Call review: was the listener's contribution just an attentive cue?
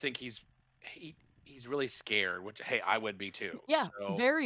No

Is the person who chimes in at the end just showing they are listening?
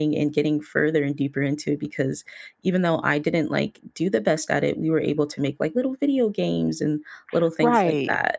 No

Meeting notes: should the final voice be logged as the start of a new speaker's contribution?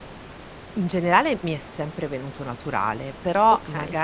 No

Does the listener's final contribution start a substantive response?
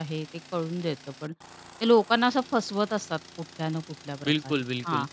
Yes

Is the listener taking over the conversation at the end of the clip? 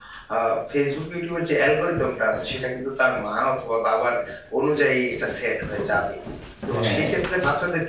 No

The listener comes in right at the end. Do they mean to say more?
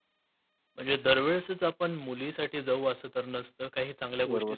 No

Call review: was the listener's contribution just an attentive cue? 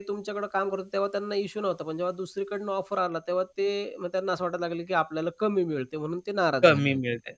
No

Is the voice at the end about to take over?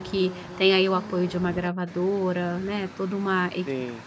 No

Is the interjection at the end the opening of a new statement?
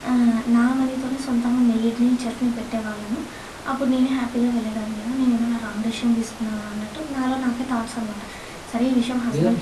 Yes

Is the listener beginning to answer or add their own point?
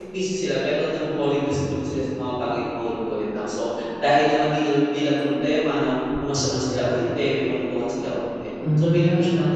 No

